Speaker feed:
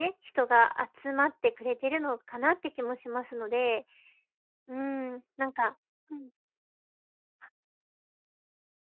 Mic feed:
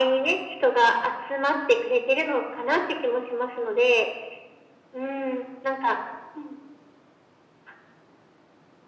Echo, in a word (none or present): present